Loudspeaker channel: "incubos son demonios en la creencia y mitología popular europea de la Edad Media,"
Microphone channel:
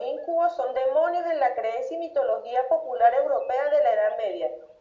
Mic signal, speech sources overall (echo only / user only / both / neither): echo only